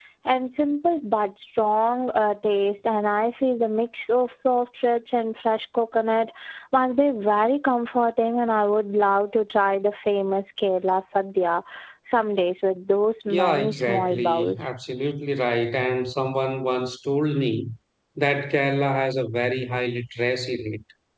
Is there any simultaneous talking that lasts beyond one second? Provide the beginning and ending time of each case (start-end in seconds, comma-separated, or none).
13.3-14.7